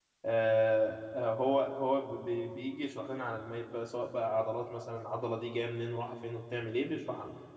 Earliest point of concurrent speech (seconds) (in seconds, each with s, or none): none